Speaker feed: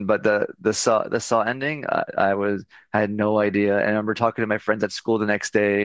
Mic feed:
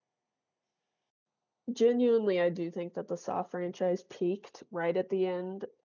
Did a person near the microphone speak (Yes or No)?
Yes